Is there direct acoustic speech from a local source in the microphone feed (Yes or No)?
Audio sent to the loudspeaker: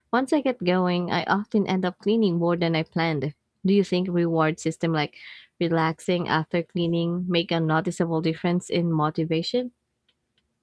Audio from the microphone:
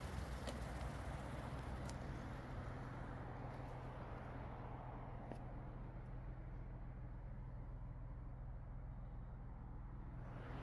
No